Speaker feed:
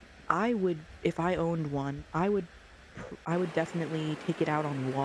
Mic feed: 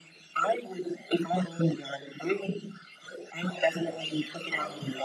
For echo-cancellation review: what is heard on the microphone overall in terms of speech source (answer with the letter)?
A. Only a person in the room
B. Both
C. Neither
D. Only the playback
B